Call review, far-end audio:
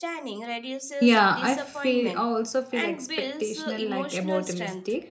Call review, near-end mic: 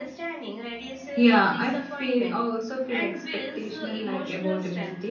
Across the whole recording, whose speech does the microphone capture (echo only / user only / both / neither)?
echo only